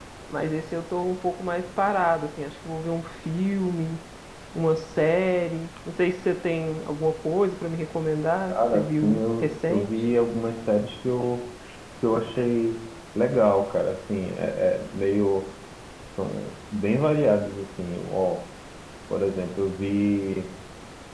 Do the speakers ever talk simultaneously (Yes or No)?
Yes